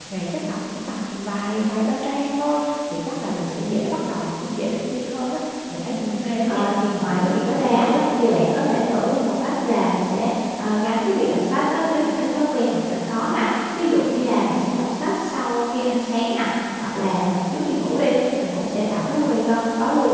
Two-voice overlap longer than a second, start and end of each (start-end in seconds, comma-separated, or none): 6.0-8.0